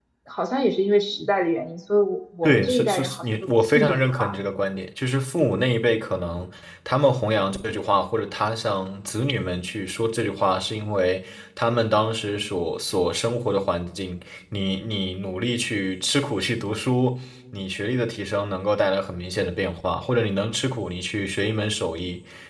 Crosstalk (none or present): present